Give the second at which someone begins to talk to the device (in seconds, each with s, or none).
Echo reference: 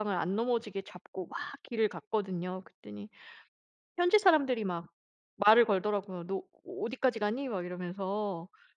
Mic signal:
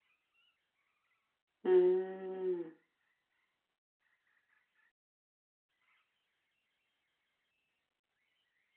1.6 s